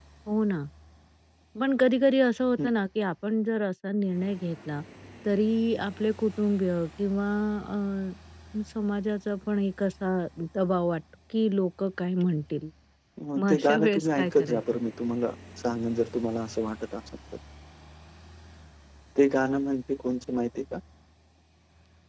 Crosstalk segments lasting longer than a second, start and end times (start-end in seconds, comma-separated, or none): 13.4-14.6